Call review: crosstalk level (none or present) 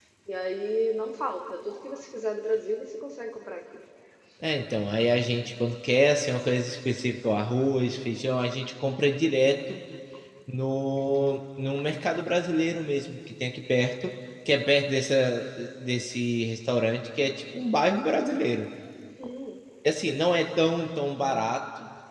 none